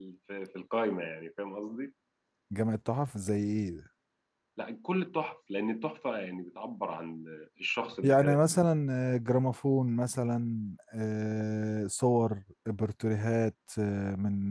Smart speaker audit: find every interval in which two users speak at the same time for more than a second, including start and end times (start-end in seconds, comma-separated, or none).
none